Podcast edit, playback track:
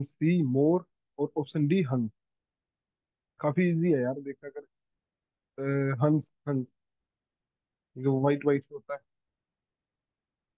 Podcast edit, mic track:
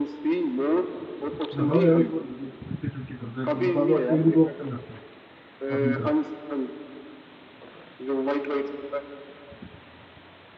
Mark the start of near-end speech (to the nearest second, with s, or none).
2 s